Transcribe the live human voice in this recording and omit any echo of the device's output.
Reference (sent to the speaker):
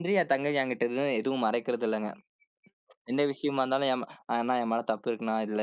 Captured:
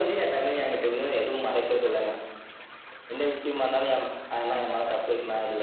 none

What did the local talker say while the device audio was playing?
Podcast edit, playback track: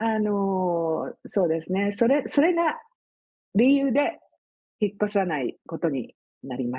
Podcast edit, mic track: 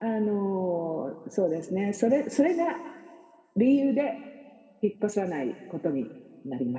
none

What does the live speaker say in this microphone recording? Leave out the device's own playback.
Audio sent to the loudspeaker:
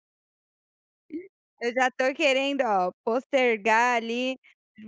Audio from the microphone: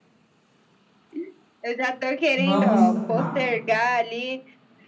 vamos, hã, não.

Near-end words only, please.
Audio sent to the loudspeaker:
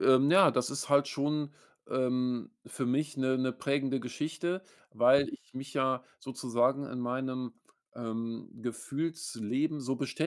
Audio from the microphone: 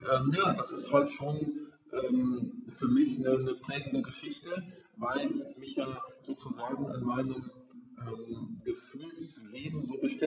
none

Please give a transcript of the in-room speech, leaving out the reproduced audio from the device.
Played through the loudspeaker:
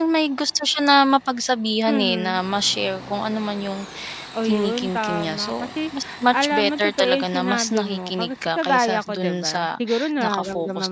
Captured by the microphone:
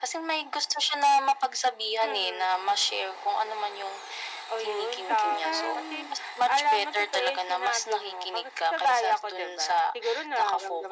Kasi parang,

